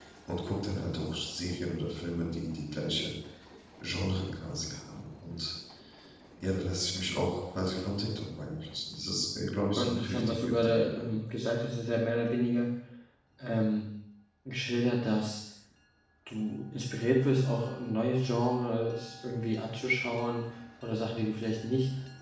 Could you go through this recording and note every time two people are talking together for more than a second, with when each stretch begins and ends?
9.8-11.2

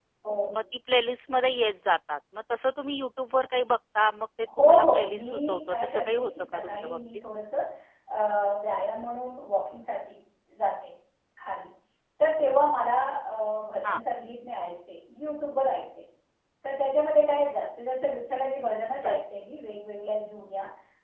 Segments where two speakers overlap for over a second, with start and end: 4.6-7.0

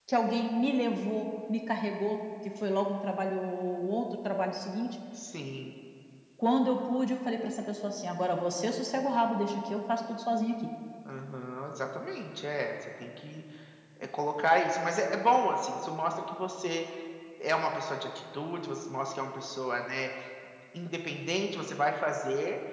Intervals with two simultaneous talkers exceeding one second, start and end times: none

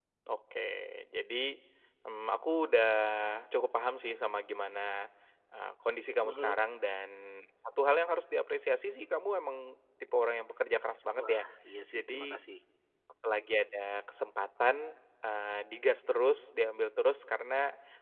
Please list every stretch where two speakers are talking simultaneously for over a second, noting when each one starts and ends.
none

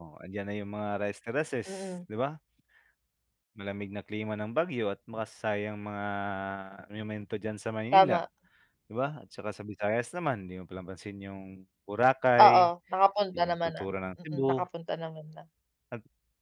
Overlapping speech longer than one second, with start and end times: none

